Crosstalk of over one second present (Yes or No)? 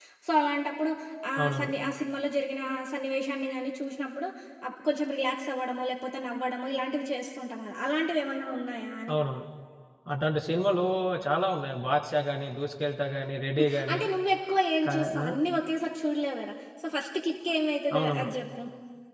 No